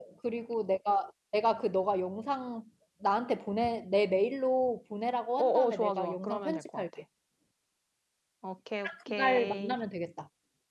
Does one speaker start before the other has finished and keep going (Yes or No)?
Yes